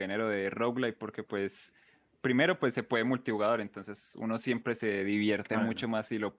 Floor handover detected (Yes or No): No